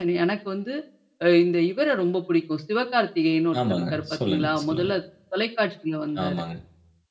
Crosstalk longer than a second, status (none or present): present